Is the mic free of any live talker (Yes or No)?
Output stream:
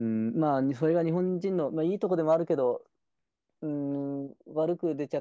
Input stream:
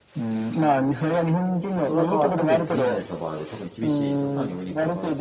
No